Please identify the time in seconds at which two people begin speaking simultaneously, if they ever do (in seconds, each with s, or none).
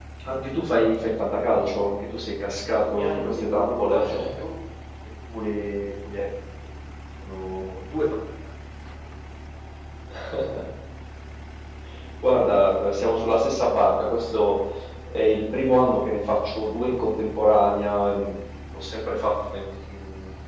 2.8 s